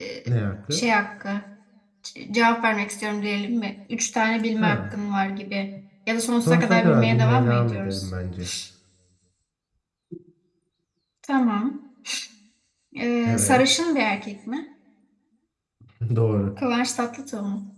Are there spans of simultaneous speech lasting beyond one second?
Yes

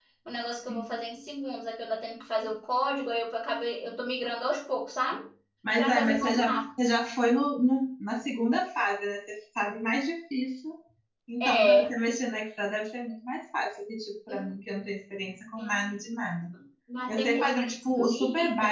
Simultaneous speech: Yes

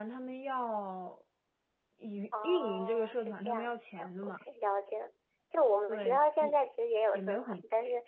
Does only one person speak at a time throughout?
No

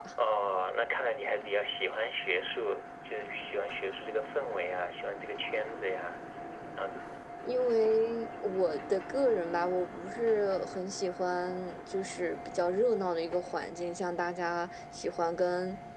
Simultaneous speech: No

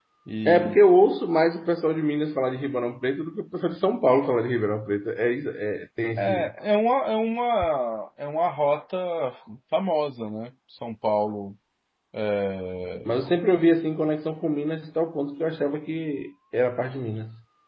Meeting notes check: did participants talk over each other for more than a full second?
No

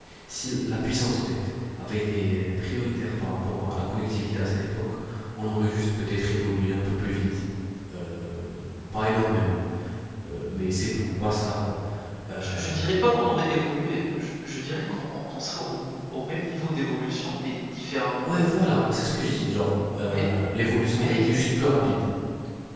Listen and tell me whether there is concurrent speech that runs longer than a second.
No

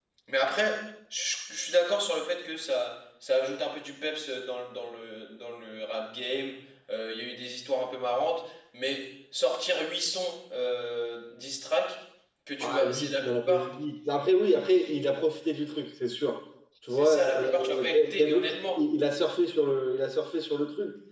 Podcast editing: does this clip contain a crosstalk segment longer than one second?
Yes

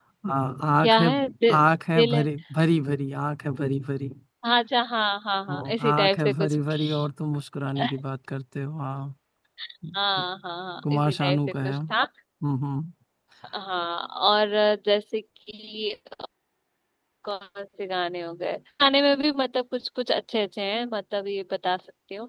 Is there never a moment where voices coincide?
No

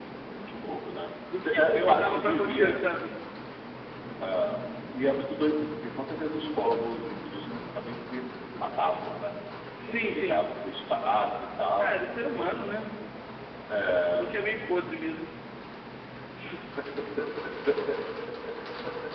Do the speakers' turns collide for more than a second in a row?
Yes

